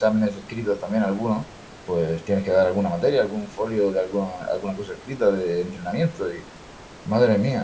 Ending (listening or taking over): listening